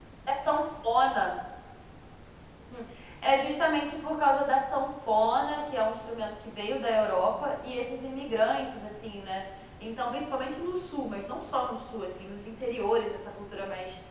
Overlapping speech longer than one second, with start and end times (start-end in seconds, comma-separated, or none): none